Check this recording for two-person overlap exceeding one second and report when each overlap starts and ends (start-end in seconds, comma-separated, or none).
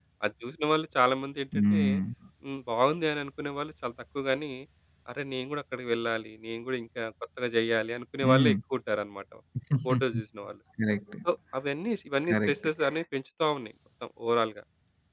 none